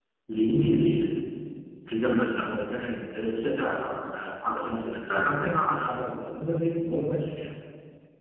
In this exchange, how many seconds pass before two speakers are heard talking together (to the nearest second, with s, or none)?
none